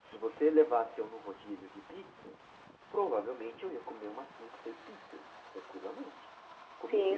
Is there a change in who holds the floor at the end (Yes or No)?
No